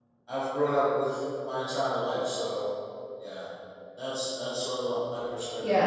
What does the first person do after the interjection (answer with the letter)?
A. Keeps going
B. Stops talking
B